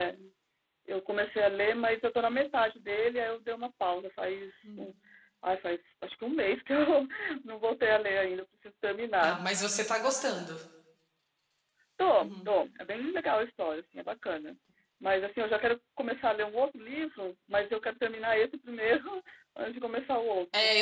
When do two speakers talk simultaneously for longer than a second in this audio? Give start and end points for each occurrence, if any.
none

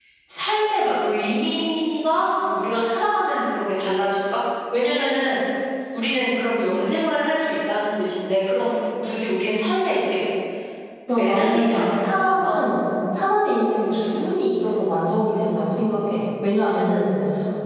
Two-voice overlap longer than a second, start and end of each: 11.2-12.7

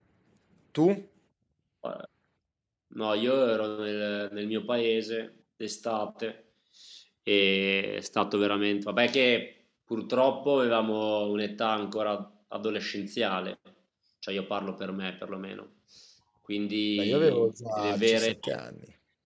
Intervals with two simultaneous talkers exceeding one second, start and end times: 17.0-18.3

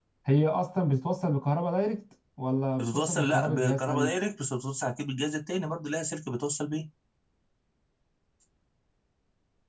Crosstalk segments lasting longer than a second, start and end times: 2.8-4.1

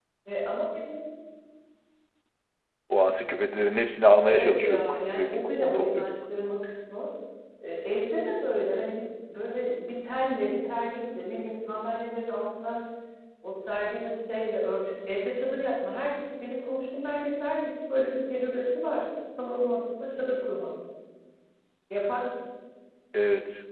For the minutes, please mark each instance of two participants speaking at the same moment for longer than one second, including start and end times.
4.2-6.2

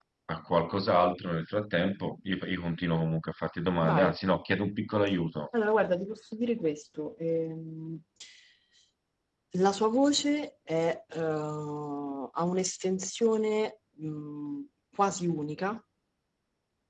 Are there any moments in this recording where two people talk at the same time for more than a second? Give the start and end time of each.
none

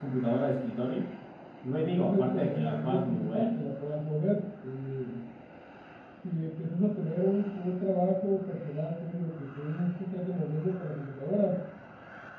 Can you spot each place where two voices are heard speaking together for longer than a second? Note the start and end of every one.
1.8-3.5

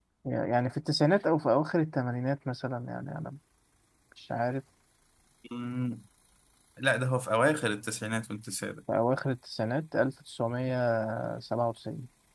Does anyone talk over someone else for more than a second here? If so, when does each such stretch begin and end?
none

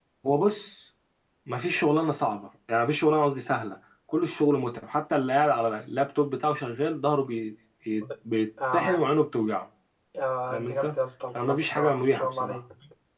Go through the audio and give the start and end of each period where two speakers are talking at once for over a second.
11.3-12.6

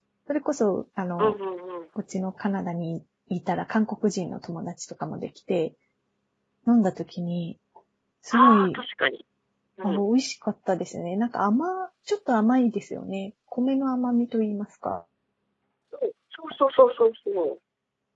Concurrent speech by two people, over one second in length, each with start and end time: none

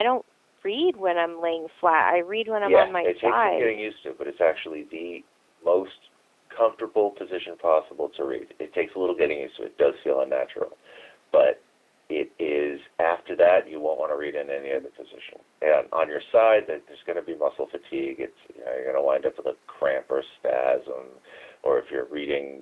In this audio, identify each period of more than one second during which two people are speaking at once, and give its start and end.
2.6-3.8

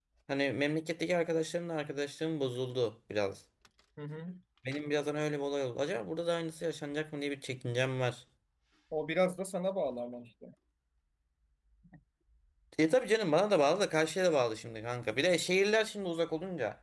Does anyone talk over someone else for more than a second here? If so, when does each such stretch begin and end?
none

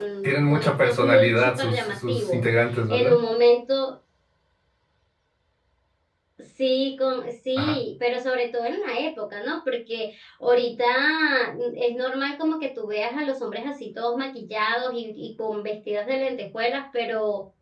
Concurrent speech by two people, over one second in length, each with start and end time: 0.5-2.4

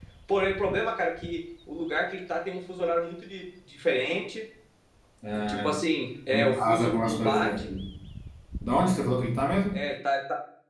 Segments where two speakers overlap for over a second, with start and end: 6.3-7.7

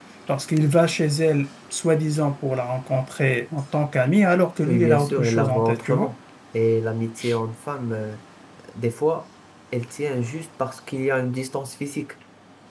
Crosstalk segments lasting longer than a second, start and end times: 4.6-6.1

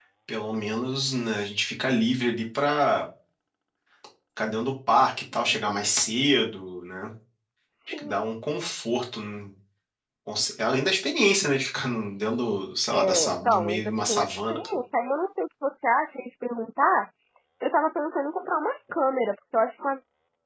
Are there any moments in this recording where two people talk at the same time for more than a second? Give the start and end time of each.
12.9-14.6

